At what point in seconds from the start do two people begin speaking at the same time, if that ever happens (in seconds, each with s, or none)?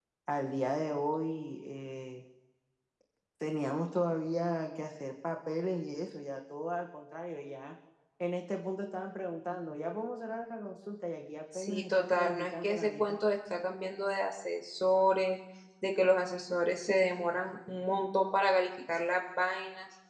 11.5 s